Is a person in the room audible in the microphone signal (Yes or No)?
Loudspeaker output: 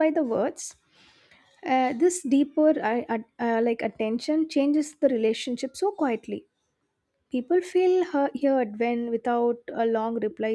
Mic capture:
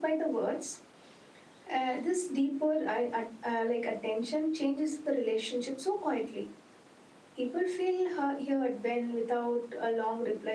No